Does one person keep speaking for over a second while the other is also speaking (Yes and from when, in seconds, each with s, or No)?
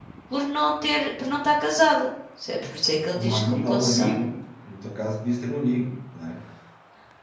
Yes, from 3.1 s